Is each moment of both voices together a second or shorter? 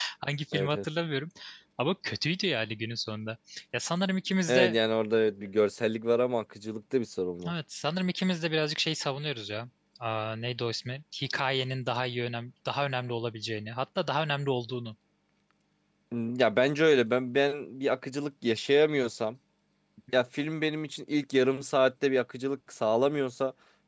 Yes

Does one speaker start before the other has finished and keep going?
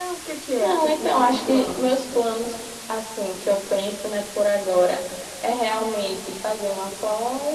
Yes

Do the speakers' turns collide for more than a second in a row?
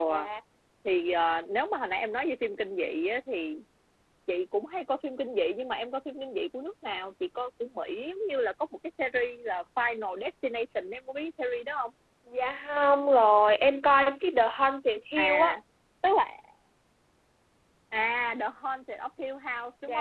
No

